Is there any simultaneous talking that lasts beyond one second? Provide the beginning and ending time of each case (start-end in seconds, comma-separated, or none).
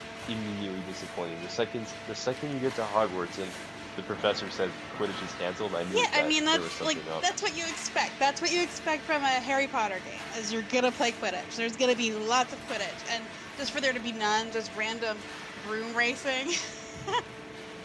5.9-7.2